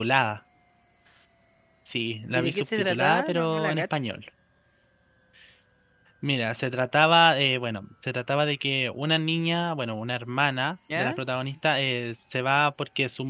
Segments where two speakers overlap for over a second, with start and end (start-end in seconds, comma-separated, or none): 2.3-4.0